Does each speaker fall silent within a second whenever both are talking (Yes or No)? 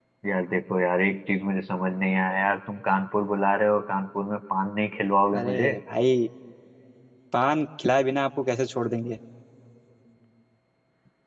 Yes